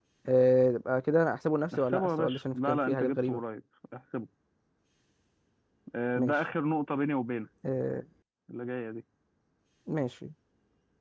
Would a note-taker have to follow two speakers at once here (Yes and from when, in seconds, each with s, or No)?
Yes, from 1.7 s